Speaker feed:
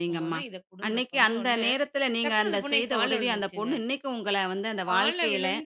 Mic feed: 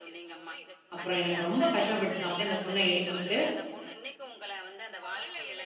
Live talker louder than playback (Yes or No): Yes